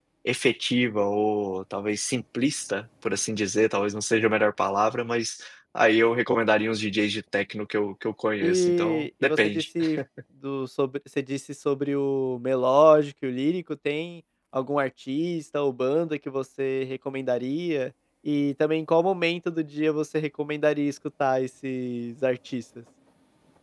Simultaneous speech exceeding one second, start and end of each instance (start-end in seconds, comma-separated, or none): 8.4-9.6